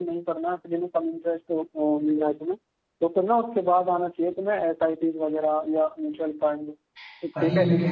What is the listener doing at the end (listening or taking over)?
taking over